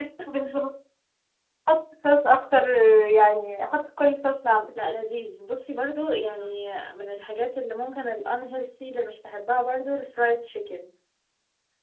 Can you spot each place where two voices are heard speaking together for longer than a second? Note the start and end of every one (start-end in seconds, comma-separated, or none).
none